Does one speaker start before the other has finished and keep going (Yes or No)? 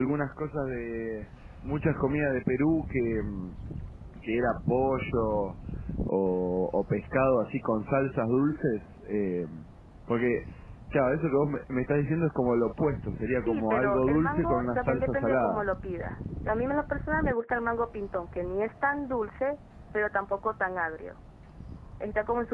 Yes